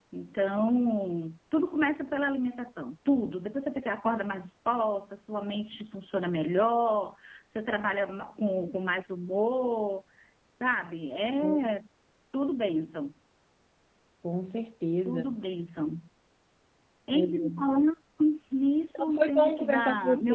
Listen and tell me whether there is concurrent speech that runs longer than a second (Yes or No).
Yes